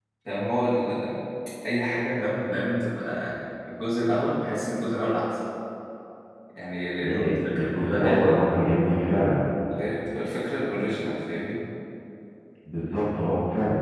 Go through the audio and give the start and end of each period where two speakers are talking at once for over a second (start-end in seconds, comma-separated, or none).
7.0-8.4